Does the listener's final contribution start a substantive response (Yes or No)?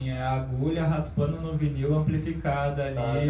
Yes